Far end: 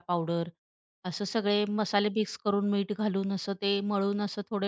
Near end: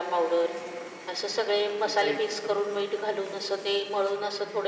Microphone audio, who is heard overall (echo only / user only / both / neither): both